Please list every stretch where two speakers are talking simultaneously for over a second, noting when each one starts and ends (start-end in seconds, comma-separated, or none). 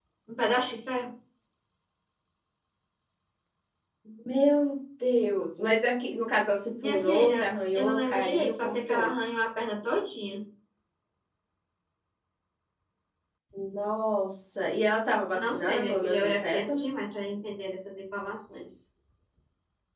6.8-9.1, 15.3-16.9